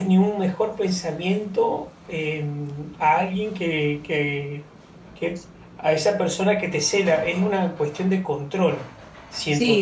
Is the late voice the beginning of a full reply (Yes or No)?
Yes